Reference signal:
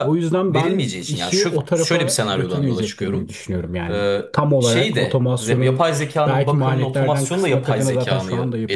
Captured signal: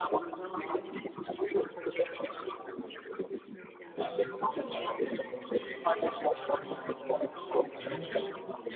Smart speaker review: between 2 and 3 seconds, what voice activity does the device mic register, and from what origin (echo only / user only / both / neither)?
echo only